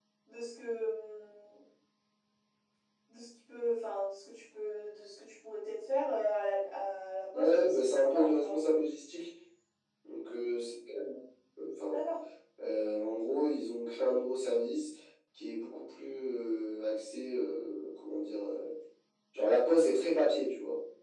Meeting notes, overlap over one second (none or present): present